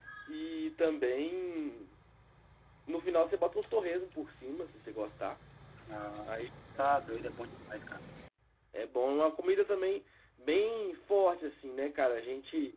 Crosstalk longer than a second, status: none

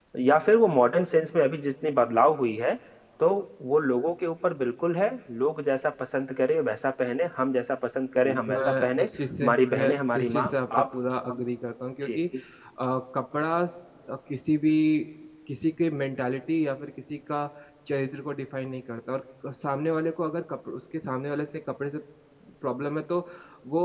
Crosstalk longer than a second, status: present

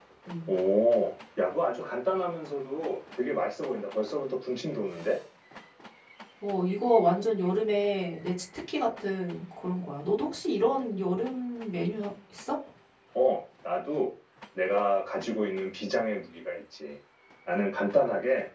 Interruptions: none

